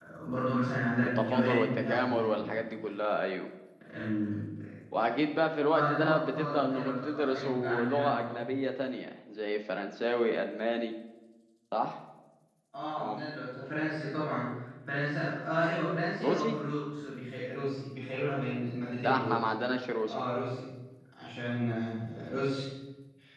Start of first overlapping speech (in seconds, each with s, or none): 1.0 s